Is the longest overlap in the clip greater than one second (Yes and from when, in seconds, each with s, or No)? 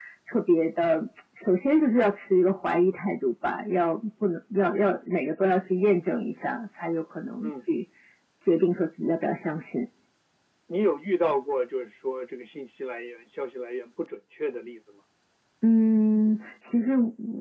No